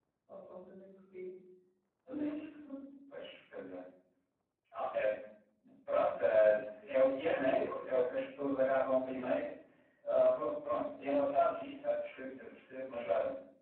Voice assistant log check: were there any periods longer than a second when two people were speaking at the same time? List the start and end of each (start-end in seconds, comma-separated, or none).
none